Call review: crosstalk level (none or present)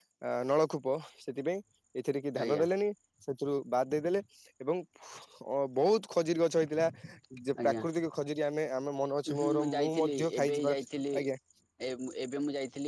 present